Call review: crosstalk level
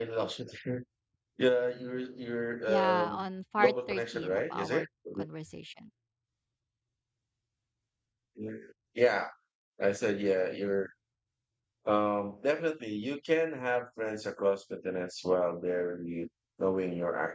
present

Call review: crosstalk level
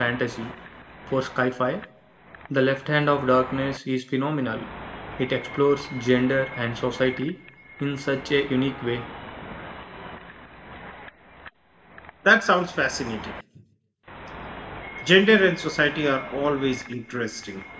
none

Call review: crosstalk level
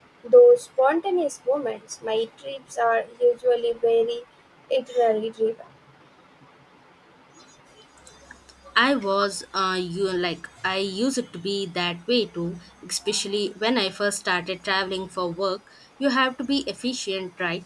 none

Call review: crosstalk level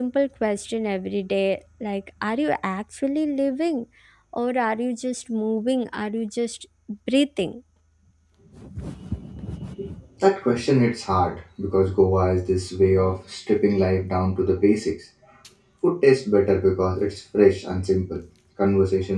none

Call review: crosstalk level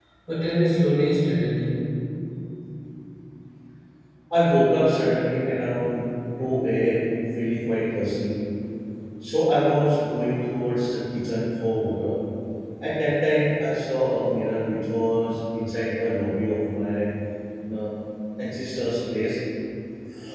none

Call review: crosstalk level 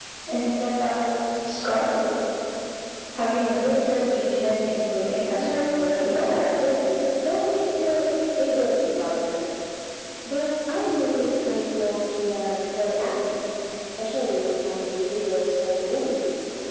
present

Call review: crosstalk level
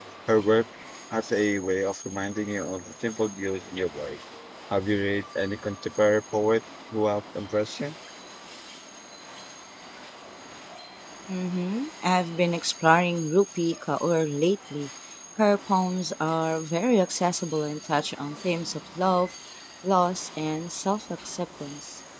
none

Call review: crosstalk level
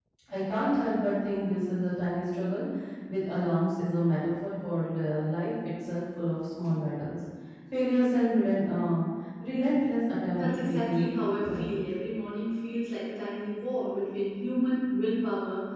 present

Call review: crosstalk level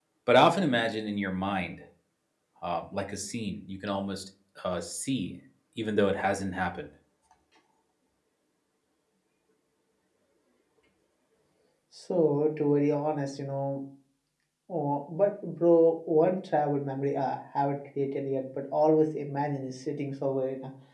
none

